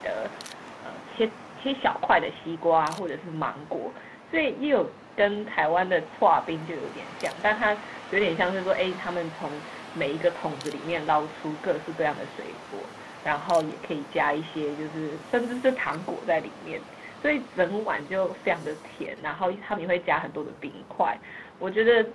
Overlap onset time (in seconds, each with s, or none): none